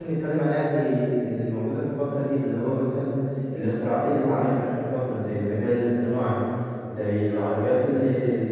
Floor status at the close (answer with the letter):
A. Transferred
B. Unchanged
B